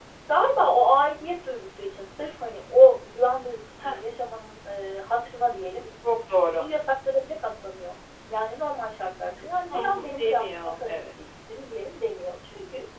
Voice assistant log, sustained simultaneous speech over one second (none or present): present